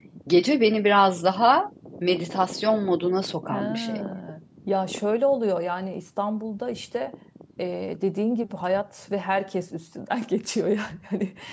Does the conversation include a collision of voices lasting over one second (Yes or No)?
No